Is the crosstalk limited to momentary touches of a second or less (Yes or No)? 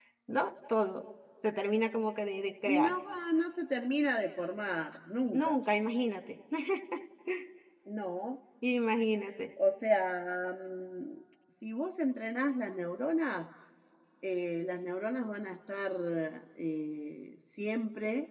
Yes